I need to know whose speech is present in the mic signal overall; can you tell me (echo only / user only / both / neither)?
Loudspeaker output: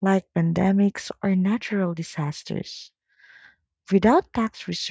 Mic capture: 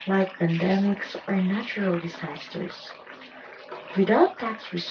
echo only